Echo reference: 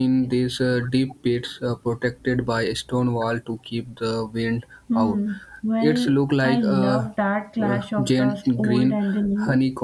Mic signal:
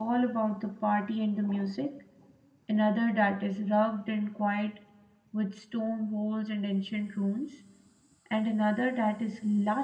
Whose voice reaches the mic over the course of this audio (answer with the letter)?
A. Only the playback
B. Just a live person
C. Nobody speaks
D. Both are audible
B